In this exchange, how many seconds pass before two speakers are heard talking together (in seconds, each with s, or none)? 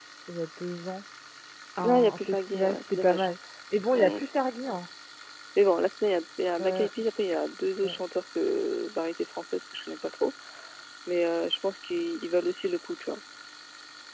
1.8 s